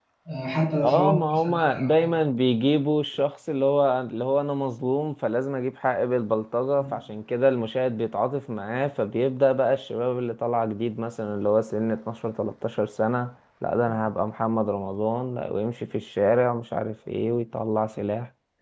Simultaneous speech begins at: 0.8 s

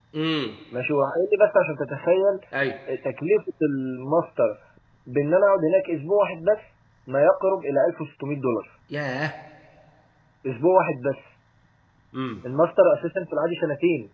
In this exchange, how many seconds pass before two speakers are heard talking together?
none

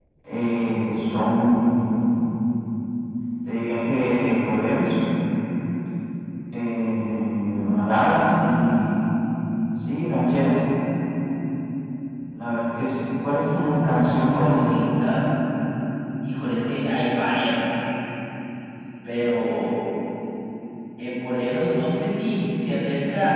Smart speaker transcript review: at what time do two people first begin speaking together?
13.4 s

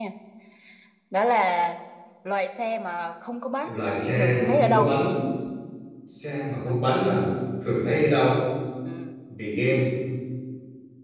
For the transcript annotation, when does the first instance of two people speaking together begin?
3.6 s

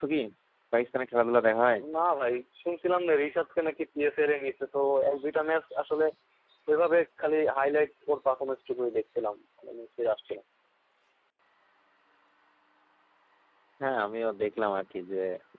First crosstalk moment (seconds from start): none

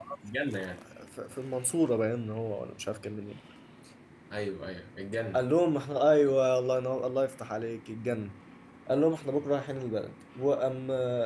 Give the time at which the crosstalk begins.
none

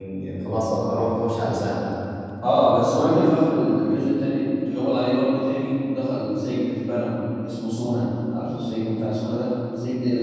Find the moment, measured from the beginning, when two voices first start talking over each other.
none

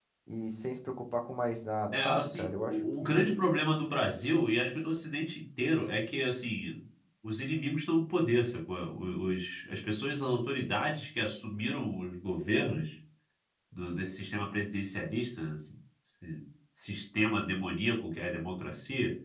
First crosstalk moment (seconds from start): 1.9 s

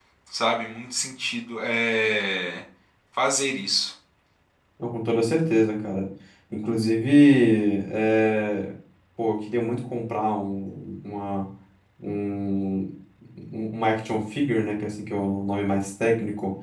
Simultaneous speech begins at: none

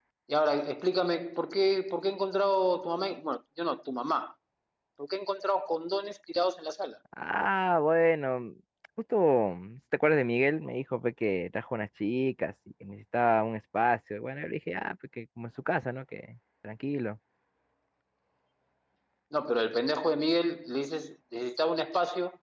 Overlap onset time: none

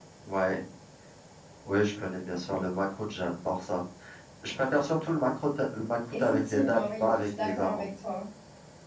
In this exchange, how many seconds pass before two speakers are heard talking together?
6.1 s

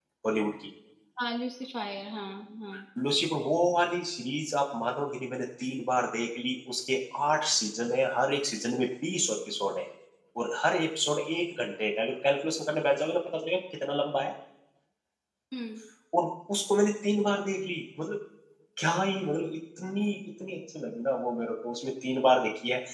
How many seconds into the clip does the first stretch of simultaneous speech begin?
none

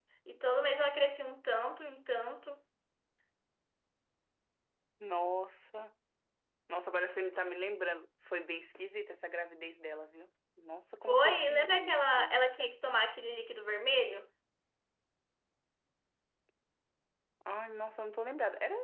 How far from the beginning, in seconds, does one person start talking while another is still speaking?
11.1 s

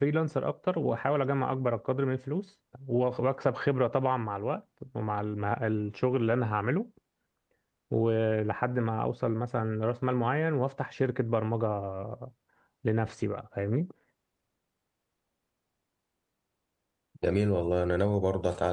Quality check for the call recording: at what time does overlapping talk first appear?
none

